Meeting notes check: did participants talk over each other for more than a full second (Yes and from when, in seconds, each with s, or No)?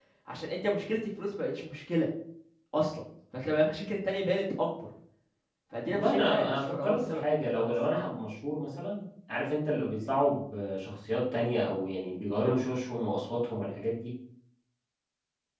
Yes, from 5.9 s